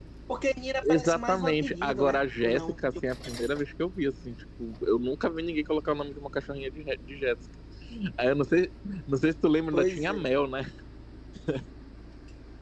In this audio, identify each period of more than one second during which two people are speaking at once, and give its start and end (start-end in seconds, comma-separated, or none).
0.8-2.8